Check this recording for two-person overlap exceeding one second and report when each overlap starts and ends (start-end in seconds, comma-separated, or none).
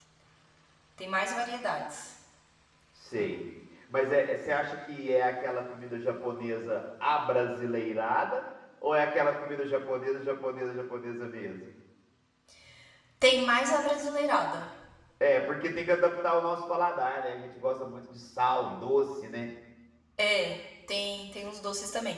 none